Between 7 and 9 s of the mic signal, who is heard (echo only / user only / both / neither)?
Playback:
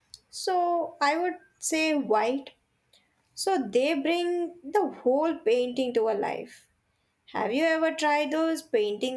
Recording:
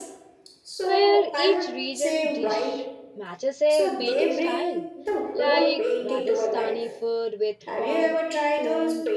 both